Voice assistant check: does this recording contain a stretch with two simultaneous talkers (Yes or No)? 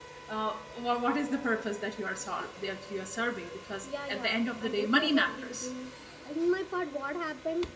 Yes